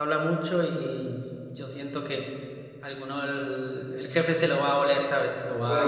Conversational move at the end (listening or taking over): taking over